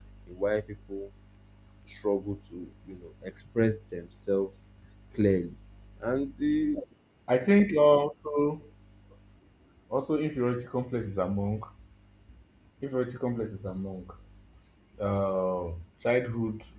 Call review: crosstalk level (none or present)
none